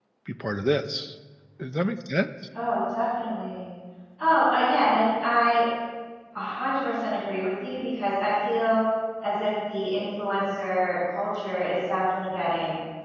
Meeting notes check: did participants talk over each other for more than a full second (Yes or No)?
No